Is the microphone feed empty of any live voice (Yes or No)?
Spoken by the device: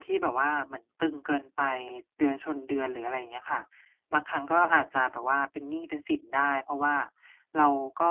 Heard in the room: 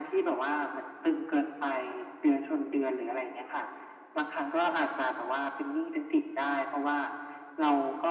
Yes